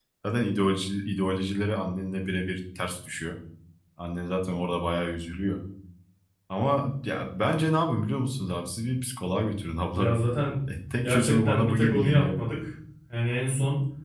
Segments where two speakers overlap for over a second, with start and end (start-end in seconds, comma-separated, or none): 11.0-12.3